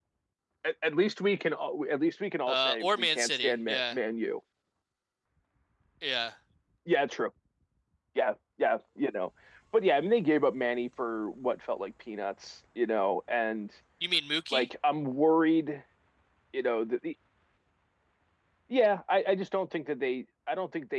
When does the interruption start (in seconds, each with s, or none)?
2.5 s